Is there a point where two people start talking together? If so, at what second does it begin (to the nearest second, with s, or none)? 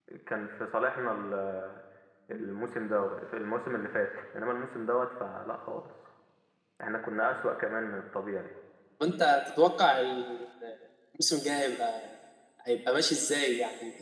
none